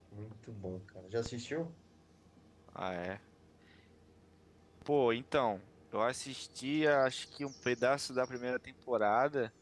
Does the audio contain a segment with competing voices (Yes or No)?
No